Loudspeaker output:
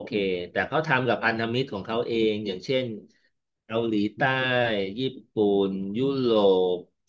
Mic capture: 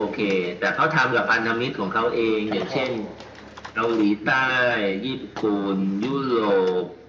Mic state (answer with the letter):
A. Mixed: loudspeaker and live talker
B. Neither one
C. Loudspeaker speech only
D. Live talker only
A